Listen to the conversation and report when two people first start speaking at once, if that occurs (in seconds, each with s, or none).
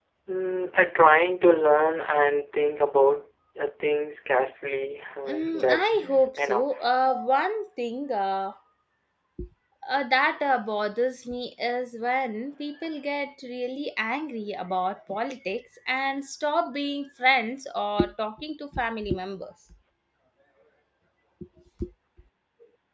5.3 s